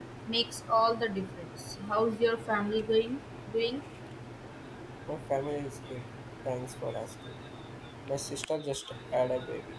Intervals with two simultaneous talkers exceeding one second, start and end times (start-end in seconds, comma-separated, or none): none